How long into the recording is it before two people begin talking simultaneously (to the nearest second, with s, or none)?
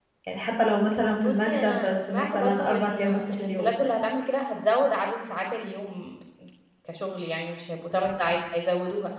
1 s